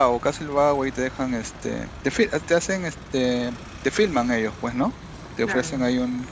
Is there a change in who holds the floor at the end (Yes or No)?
No